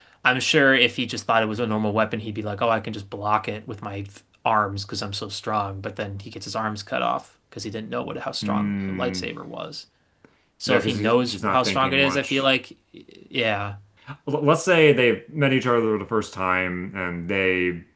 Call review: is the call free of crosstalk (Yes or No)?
No